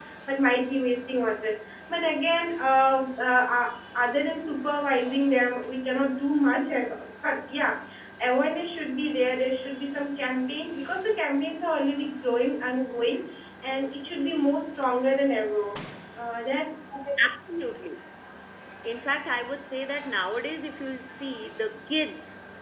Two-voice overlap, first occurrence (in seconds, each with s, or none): none